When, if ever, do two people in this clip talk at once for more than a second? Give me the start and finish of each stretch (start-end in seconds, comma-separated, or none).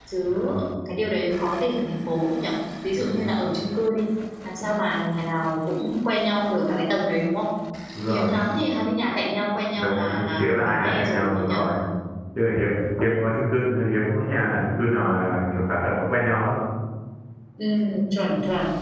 9.8-11.6